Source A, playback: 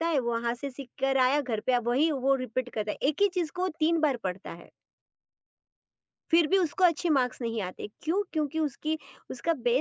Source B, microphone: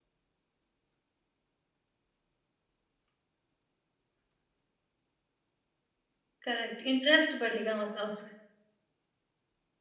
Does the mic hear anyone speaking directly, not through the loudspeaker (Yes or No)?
Yes